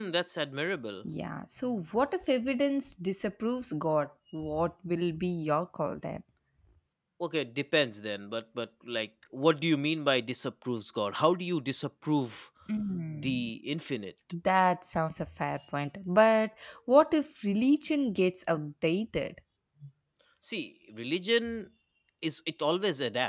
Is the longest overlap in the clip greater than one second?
No

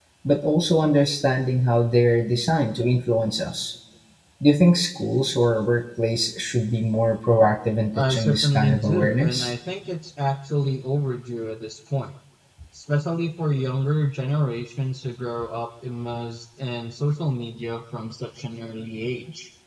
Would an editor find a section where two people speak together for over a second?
Yes, from 8.0 s

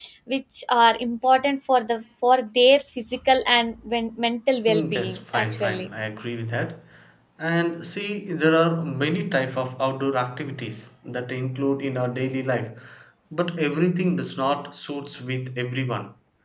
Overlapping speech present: Yes, from 4.7 s

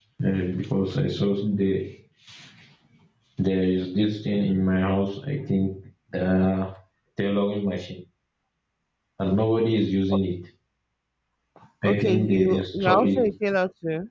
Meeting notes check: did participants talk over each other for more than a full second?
Yes, from 11.8 s

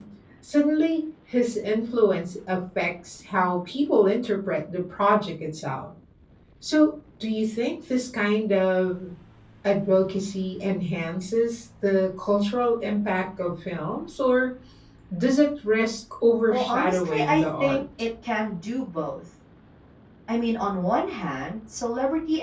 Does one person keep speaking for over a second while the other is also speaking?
Yes, from 16.5 s

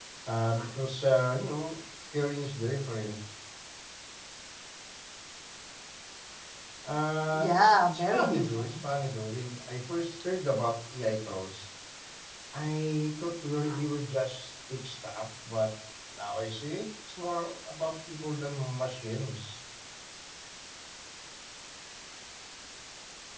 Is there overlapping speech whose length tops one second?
Yes, from 7.3 s

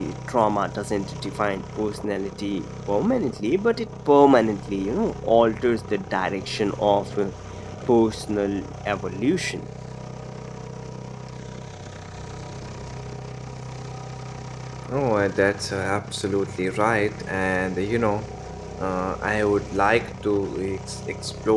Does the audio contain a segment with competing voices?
No

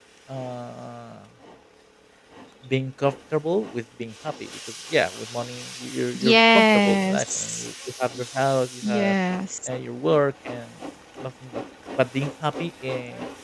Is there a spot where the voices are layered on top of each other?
Yes, from 6.2 s

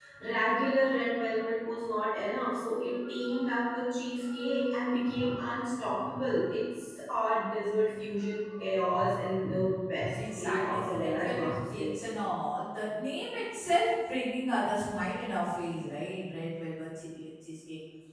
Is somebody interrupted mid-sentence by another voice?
Yes, from 10.1 s

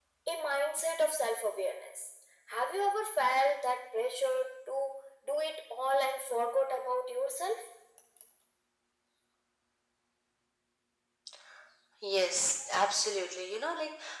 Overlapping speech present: No

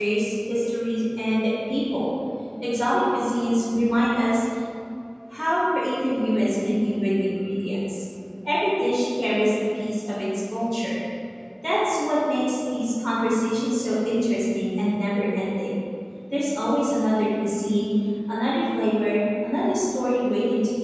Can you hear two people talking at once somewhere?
No

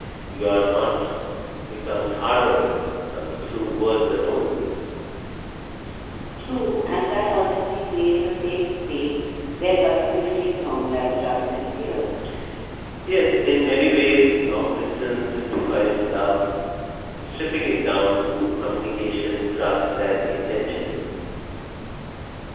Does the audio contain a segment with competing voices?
No

